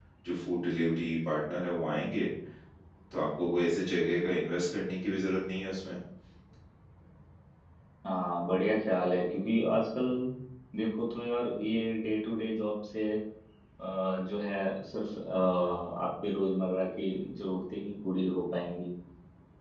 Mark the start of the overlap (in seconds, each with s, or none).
none